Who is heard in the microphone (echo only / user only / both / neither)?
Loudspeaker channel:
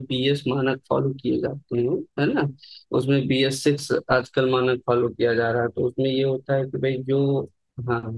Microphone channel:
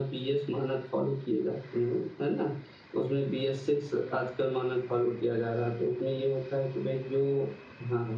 echo only